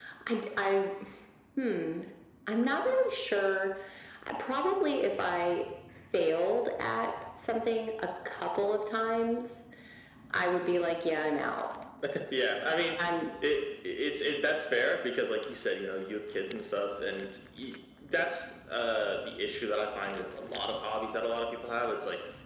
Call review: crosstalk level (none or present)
none